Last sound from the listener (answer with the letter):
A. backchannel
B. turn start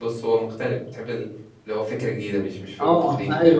B